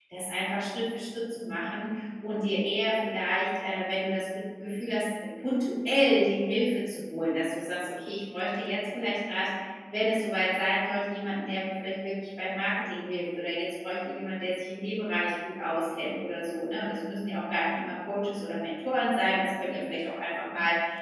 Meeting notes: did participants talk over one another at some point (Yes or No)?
No